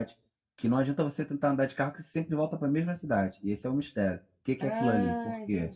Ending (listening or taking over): taking over